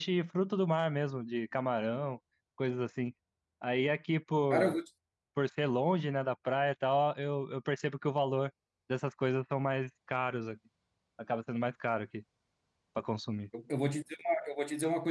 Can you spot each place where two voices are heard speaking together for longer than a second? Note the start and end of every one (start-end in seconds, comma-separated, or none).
none